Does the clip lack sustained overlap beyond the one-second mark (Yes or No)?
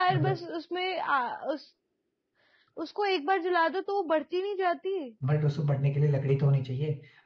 Yes